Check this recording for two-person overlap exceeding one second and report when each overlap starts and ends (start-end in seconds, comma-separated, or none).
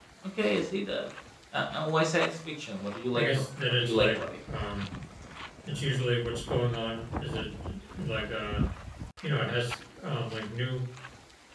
3.1-4.3